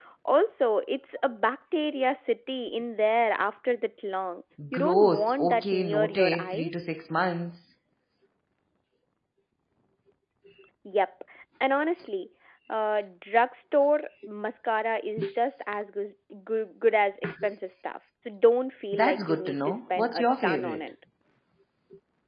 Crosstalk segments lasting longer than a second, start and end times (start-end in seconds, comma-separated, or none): 4.7-6.7, 18.9-20.9